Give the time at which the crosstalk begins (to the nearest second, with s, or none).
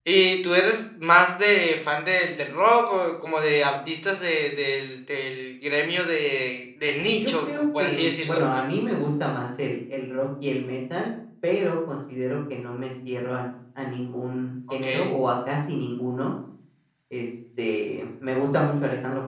7 s